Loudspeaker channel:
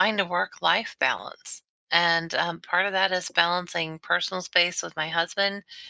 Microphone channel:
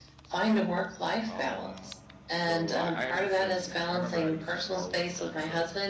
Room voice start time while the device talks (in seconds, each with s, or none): 1.2 s